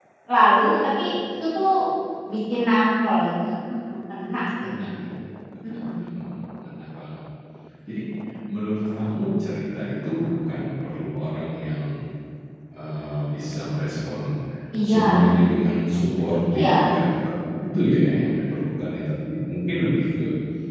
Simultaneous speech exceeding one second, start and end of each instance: none

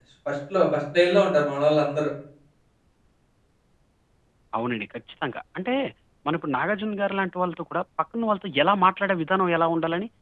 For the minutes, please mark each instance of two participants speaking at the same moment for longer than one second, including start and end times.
none

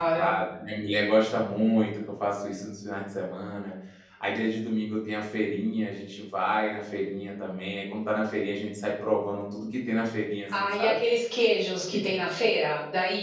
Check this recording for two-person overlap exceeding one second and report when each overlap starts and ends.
none

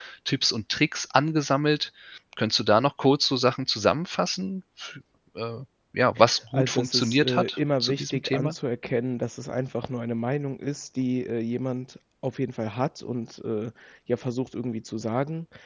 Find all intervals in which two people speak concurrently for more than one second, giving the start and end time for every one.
6.5-8.5

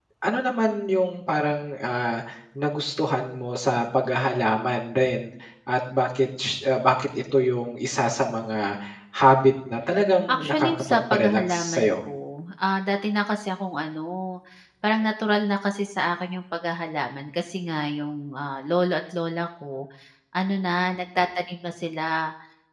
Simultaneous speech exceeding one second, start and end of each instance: 10.3-12.0

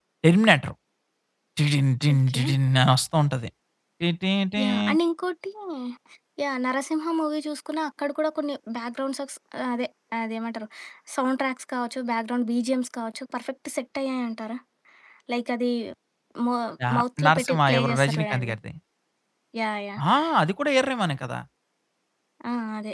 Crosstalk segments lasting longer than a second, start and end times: 17.0-18.5

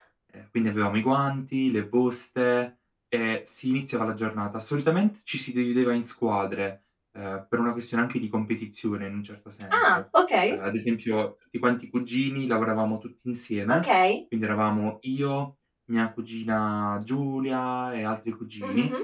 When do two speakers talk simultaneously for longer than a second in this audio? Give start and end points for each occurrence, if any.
none

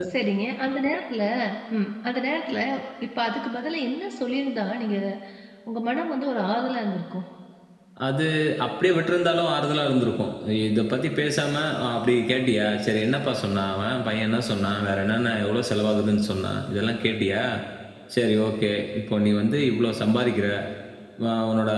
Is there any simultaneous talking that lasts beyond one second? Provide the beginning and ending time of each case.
none

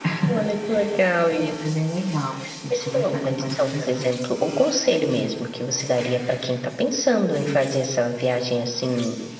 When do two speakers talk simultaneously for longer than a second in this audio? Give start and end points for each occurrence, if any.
2.7-4.1

